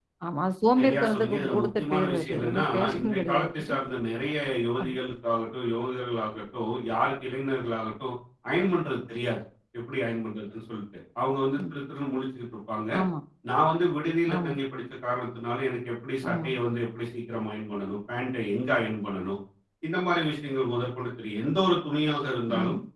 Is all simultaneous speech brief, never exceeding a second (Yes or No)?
No